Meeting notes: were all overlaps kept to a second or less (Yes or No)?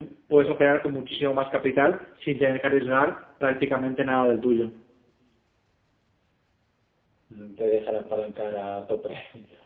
Yes